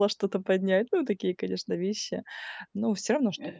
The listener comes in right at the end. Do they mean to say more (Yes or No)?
No